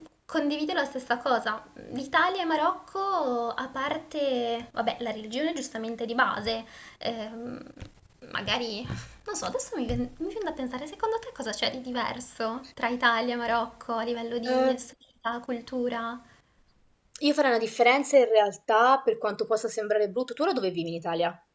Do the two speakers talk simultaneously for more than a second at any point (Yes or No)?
No